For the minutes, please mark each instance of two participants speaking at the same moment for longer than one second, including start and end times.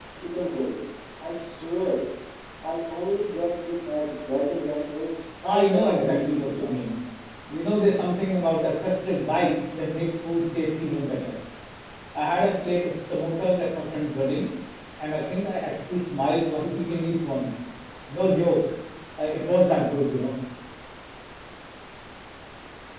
5.4-6.8

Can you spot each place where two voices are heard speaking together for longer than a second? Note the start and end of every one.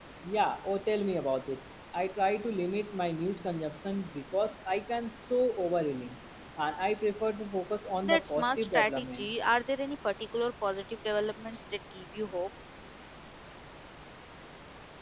8.0-9.5

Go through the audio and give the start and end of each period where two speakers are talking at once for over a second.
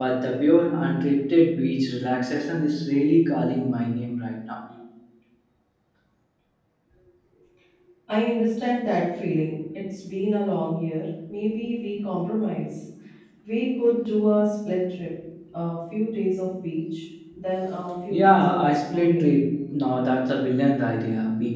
18.1-19.3

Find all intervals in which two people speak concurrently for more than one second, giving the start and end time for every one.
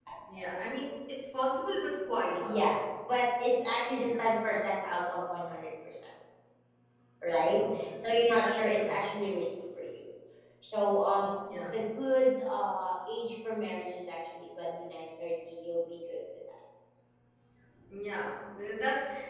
7.4-9.0

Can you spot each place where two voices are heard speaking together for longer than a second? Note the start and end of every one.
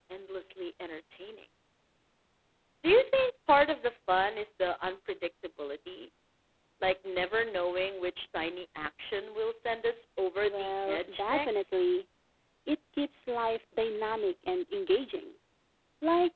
10.4-11.7

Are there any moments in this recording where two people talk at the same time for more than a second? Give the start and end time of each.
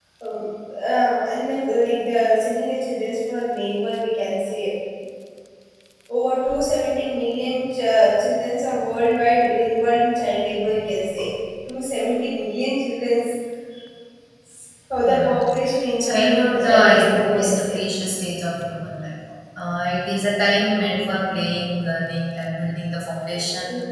16.0-17.8

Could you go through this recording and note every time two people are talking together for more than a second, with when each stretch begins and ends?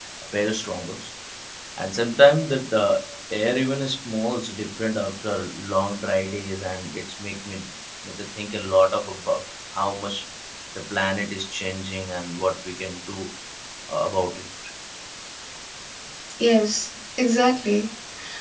none

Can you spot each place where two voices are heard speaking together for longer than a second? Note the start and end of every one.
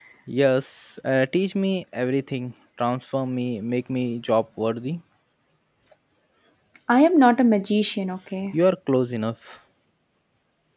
none

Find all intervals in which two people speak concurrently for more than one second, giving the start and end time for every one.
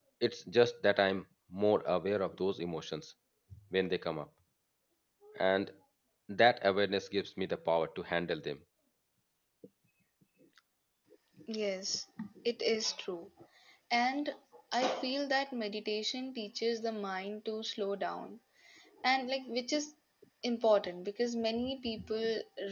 none

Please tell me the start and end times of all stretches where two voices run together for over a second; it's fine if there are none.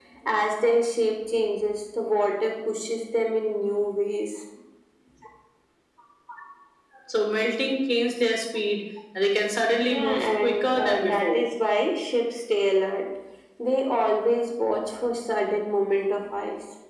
9.8-11.4

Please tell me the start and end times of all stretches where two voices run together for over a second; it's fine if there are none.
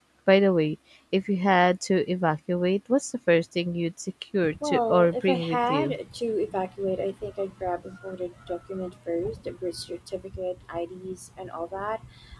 4.6-6.0

